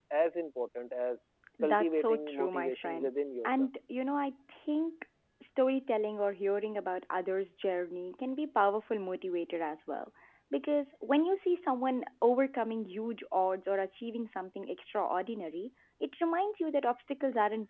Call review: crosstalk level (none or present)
present